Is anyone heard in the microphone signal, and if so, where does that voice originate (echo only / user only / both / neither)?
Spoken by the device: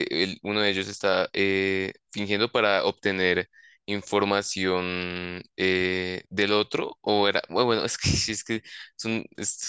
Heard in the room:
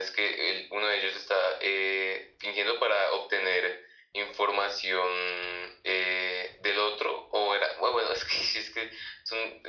echo only